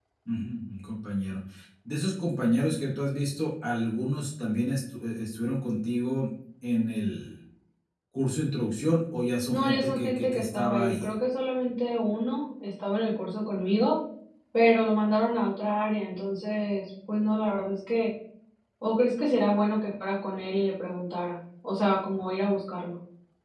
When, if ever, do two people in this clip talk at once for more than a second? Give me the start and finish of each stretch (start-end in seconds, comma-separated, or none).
9.5-11.2